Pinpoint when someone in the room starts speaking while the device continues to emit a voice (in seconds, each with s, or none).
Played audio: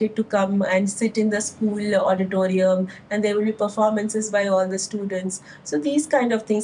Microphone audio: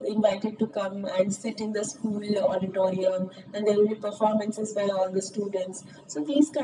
none